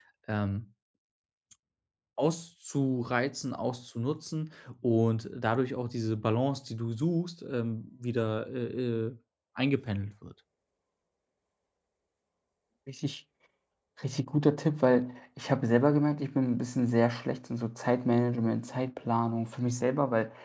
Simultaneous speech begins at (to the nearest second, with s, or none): none